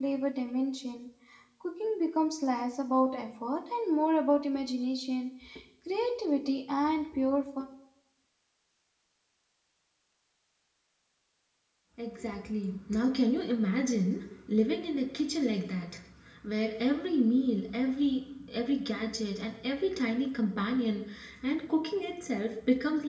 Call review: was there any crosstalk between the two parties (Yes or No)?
No